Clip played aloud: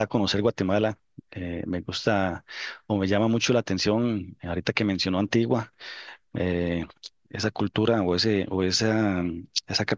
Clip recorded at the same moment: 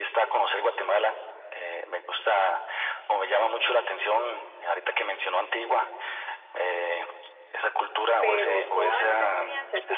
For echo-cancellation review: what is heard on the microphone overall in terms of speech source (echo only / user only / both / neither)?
both